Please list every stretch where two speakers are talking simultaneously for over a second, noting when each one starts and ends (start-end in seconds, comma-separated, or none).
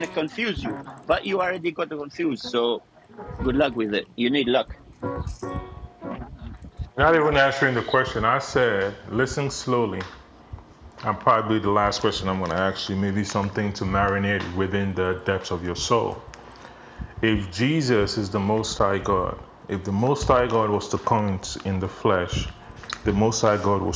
none